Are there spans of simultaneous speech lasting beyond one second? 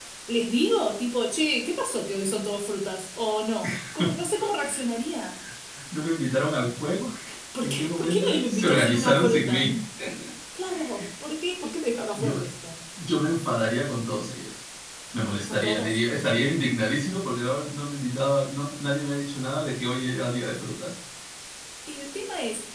Yes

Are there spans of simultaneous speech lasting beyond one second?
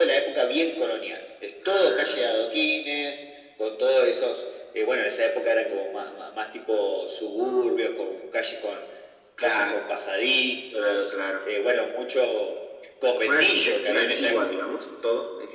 Yes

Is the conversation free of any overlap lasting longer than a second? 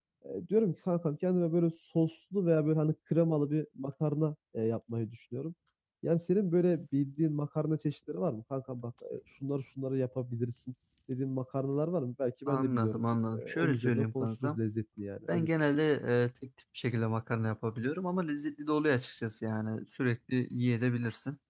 No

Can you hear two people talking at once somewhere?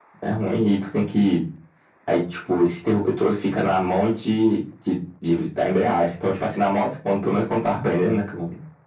No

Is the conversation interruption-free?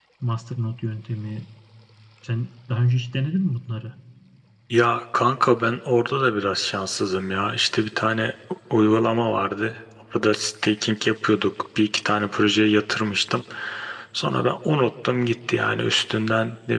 Yes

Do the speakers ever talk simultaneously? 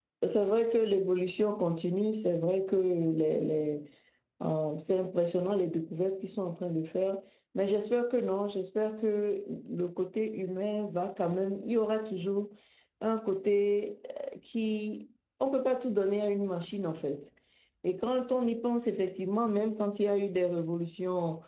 No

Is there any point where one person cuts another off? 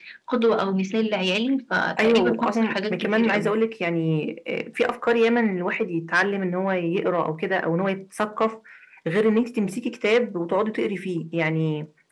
Yes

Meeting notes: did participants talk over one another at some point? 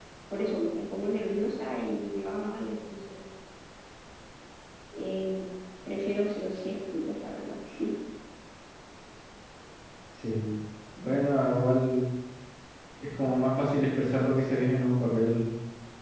No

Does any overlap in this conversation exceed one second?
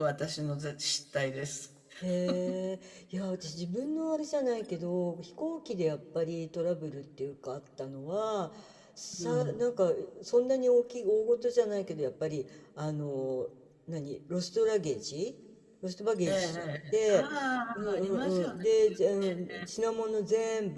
Yes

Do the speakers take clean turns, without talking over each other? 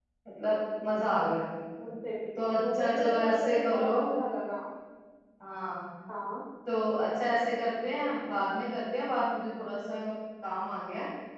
No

